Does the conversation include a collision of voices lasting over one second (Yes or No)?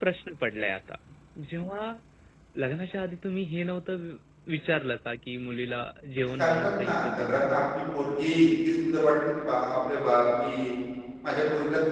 Yes